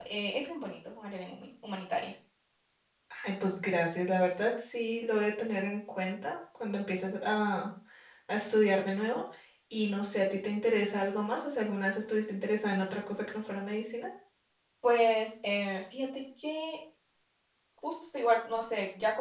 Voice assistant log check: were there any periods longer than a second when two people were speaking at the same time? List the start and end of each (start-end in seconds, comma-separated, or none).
none